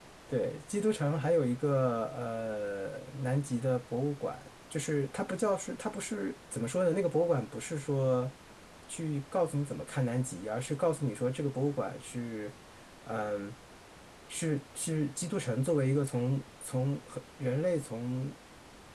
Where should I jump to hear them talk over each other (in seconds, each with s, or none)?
none